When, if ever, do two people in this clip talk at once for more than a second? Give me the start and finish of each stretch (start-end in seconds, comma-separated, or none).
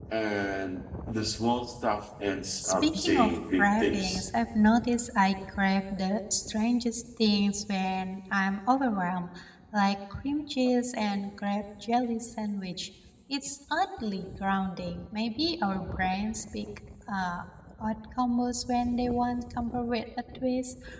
2.6-4.3